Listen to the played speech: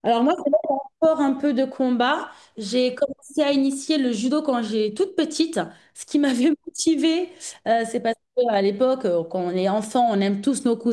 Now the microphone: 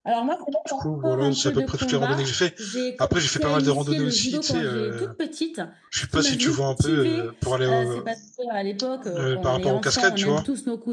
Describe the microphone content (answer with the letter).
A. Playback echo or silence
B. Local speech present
B